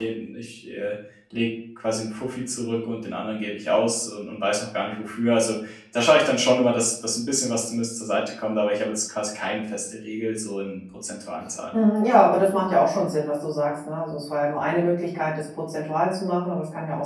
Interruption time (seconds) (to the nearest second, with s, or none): none